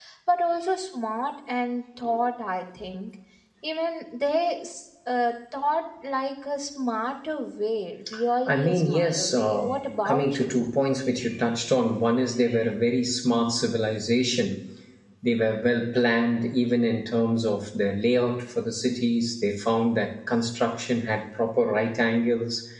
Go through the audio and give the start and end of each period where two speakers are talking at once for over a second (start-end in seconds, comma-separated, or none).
8.5-10.6